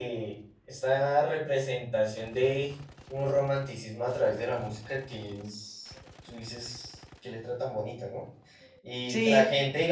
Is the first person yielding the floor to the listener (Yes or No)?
No